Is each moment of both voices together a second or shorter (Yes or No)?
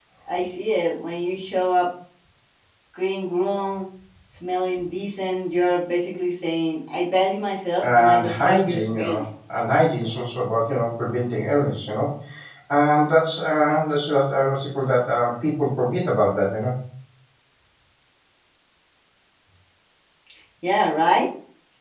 No